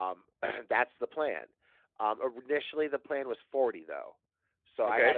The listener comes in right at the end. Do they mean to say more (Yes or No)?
No